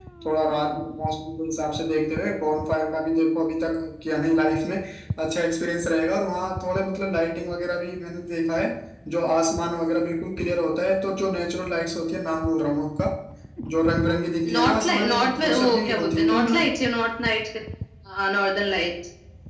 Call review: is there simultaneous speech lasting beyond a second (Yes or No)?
Yes